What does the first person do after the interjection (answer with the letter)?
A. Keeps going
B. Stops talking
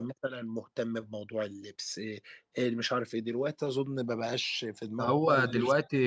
B